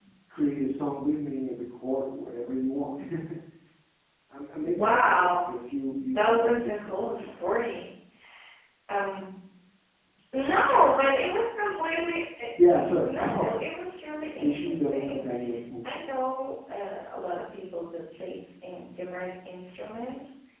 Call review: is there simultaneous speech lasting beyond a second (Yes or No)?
Yes